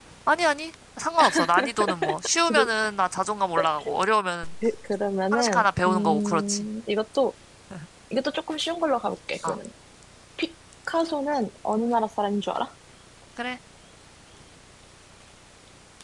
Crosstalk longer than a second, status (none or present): present